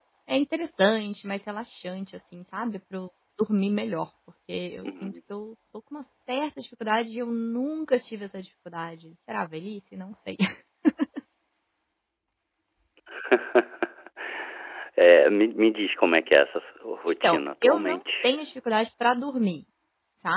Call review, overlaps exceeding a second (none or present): present